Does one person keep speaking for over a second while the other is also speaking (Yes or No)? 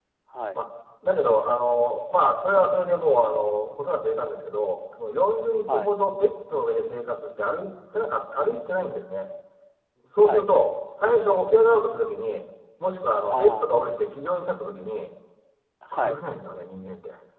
No